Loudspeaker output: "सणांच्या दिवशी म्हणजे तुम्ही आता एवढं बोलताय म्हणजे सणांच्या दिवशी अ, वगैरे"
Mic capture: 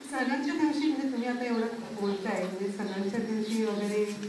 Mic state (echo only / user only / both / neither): echo only